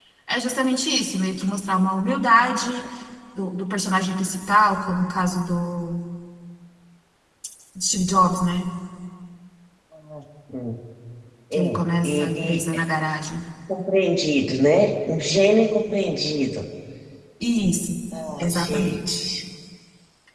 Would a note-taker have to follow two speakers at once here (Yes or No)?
Yes